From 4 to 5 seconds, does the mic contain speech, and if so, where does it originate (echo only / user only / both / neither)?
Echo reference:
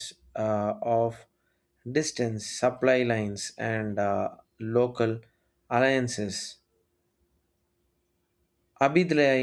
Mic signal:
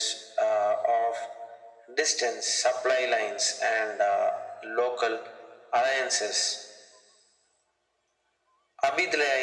echo only